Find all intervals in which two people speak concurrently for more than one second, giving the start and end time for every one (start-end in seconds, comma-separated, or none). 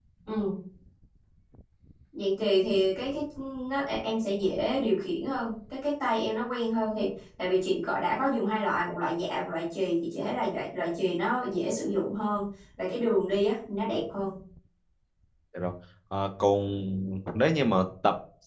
none